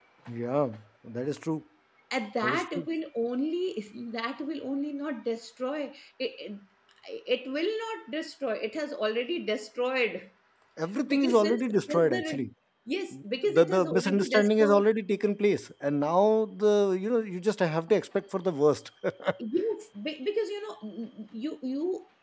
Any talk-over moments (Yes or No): Yes